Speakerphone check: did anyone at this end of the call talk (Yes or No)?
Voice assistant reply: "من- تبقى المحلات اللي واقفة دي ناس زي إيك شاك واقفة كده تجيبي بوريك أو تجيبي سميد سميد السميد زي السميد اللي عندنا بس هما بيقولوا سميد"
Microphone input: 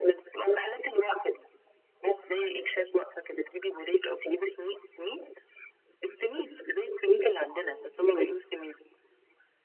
Yes